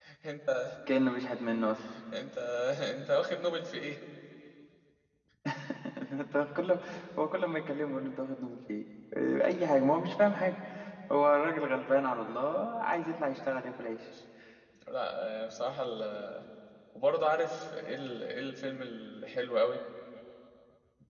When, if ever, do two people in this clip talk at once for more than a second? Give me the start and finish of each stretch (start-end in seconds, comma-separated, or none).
none